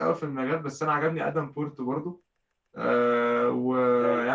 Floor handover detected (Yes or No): No